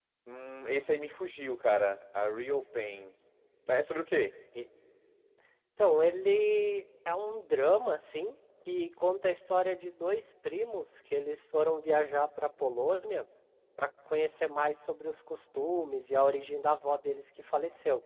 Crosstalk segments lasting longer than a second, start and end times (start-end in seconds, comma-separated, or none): none